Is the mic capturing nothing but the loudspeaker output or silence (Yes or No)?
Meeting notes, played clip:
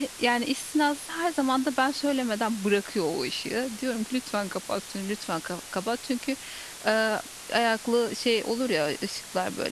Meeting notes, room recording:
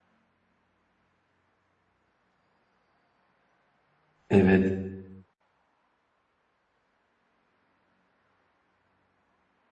No